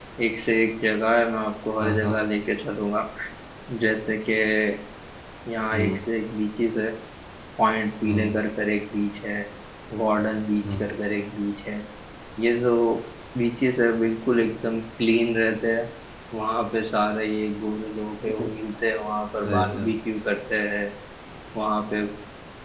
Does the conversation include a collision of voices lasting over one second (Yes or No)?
No